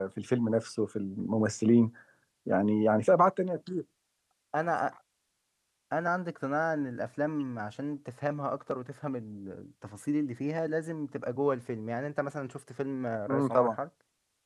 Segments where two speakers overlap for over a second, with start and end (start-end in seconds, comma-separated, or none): none